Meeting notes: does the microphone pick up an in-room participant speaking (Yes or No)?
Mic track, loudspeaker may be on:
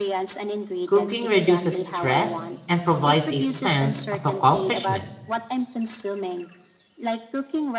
Yes